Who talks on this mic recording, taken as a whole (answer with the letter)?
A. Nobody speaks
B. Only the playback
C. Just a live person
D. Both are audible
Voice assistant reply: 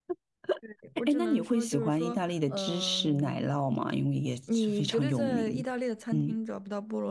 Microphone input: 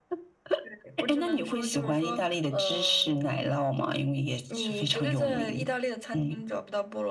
B